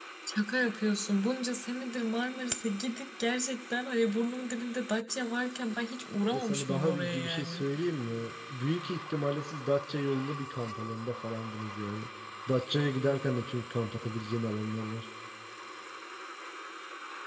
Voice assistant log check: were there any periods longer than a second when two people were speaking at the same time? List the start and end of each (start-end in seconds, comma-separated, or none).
6.3-7.7